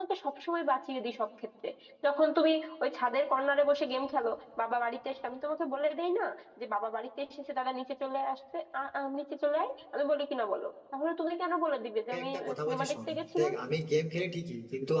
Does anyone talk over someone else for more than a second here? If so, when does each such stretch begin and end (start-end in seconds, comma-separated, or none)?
12.1-13.5